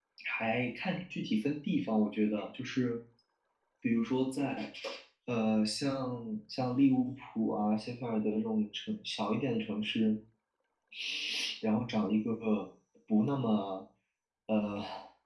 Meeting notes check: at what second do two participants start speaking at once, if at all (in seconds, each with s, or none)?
none